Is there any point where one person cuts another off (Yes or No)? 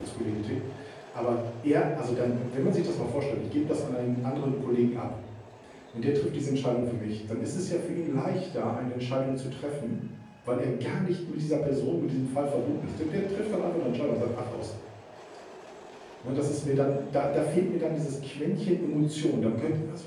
No